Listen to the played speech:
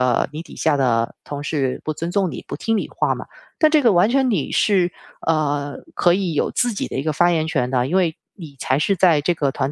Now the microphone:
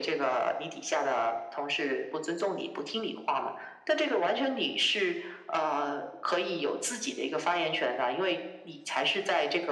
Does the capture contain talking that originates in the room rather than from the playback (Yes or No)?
No